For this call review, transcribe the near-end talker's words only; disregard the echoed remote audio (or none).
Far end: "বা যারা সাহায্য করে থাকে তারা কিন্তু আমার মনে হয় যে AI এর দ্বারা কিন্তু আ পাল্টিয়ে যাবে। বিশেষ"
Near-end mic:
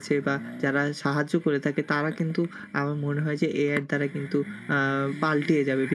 none